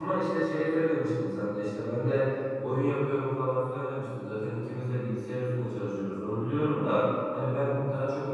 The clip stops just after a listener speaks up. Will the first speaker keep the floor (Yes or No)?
Yes